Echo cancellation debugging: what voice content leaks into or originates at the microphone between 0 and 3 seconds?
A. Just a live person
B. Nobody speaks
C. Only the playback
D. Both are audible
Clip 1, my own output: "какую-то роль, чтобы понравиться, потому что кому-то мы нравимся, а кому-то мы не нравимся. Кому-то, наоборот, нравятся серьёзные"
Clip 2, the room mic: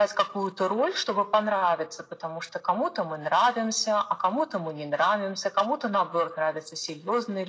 C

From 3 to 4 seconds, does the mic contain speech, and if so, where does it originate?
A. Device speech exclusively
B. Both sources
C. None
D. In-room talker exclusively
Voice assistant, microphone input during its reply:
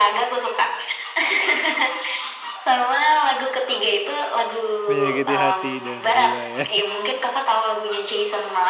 A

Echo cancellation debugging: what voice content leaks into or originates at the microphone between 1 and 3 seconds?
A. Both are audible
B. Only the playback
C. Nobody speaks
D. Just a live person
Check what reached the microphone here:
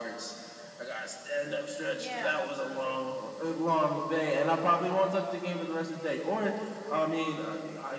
A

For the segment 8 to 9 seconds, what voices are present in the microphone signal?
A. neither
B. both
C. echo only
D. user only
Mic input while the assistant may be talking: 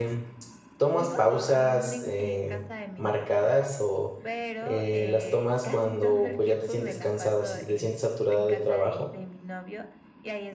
B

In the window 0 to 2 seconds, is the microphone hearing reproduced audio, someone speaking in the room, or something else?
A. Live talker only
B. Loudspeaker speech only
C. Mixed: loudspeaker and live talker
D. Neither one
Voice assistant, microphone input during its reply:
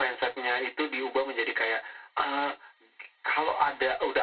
B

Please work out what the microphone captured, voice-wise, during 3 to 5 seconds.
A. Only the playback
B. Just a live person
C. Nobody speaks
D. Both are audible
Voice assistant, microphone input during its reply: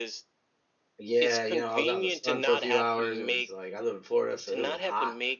D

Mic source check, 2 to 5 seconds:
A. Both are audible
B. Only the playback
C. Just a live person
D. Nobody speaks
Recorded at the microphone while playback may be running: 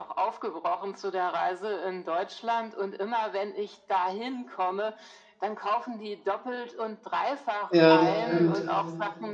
B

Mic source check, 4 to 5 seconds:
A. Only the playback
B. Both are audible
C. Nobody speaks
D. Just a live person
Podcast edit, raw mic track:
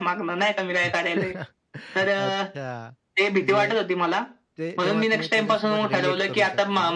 B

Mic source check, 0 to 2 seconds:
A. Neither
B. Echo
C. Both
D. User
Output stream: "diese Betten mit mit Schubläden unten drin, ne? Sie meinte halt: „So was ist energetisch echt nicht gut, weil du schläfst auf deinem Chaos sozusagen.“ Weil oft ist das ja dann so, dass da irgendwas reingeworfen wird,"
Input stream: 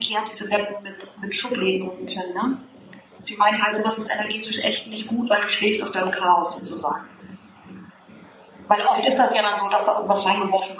B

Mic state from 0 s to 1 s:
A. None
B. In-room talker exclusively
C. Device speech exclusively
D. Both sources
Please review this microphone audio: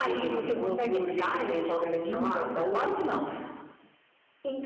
C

